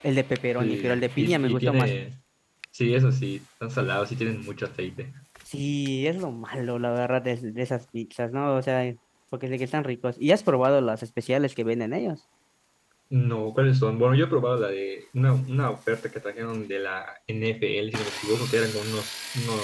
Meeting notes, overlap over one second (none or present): present